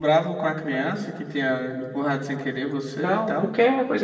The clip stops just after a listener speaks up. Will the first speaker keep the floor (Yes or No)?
No